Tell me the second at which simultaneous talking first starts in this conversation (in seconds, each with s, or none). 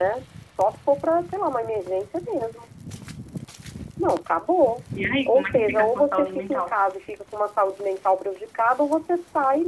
5.3 s